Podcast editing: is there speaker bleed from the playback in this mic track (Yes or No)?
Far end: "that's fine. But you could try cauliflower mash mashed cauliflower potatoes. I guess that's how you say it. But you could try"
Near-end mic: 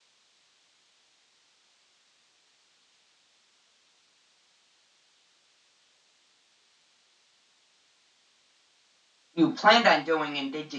No